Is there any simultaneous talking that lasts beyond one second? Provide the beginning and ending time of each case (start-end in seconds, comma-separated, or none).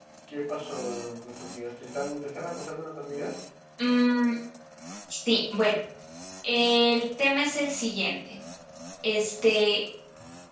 none